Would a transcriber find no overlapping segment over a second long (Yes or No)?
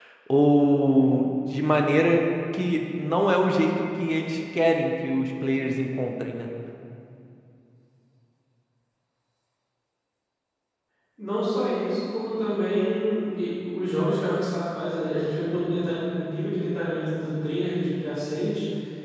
Yes